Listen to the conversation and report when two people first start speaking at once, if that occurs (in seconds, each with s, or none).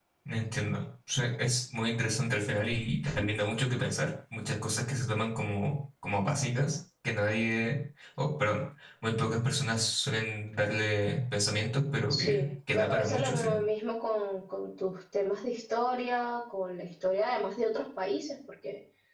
12.1 s